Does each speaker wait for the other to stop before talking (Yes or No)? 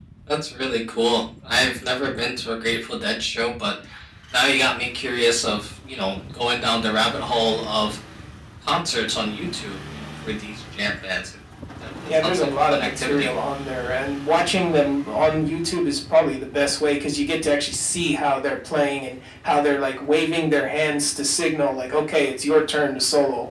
No